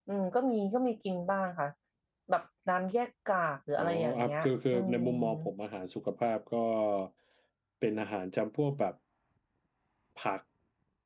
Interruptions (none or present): present